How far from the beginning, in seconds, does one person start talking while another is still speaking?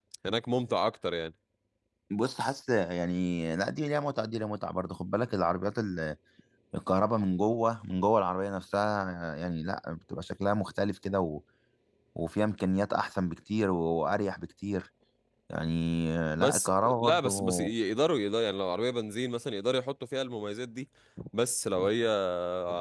16.4 s

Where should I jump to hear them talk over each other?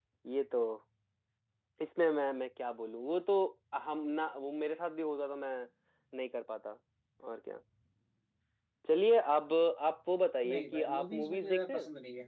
10.4 s

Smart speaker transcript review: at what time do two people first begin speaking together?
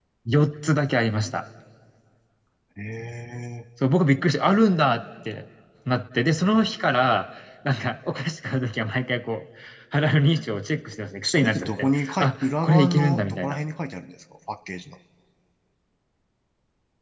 11.2 s

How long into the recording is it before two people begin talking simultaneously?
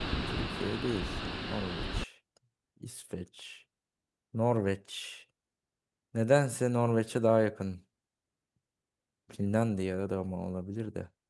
none

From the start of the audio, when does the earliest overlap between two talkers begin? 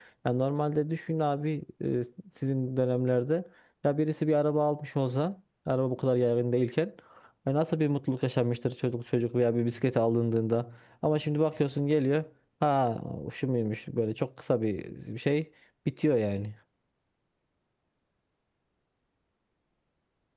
none

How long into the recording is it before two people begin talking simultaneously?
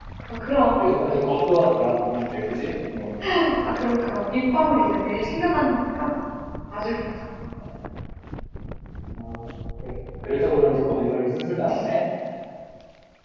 none

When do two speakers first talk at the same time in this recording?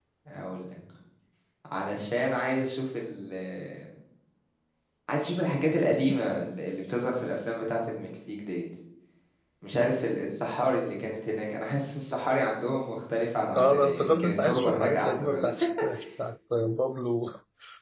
13.6 s

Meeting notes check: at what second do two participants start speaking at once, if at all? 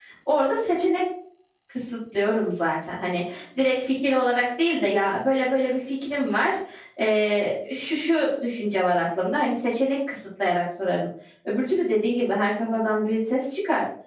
none

